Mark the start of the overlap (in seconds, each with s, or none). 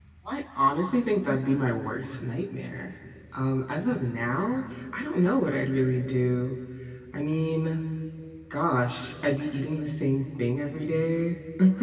none